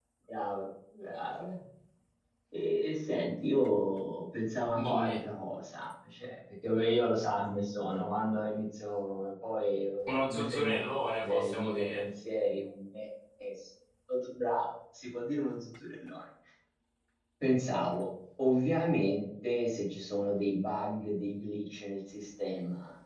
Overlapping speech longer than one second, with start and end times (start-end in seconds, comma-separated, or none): 10.1-12.0